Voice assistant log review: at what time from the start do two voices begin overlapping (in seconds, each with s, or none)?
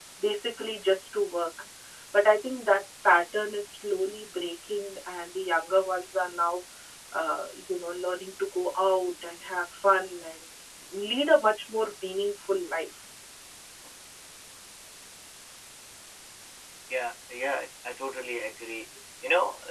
none